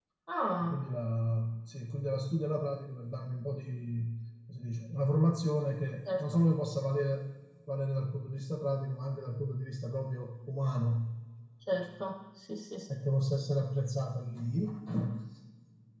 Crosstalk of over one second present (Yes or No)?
No